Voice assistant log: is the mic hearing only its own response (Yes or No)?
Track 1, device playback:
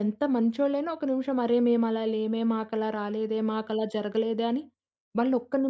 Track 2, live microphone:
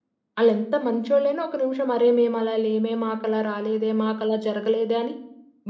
Yes